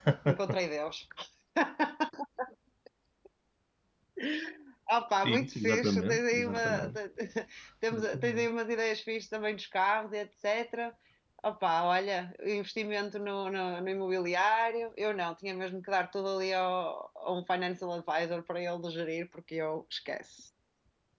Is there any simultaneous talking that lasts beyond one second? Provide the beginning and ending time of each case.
5.2-7.0

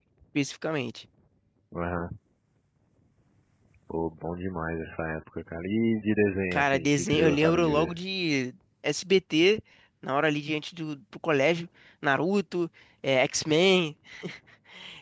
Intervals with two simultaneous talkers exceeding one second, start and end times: 6.5-8.0

